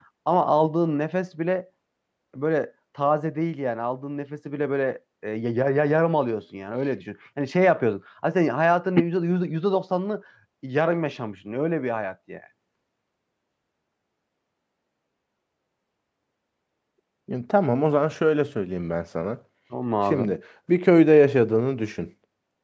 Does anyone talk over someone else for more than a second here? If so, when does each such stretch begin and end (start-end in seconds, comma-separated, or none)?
none